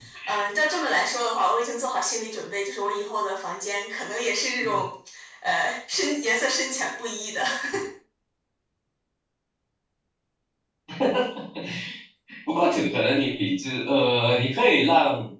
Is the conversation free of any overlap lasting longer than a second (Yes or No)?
Yes